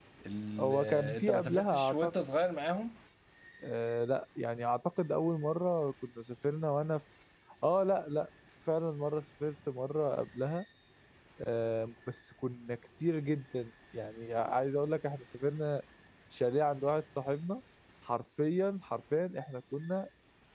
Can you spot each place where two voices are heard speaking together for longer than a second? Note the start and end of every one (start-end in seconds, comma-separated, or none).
0.6-2.1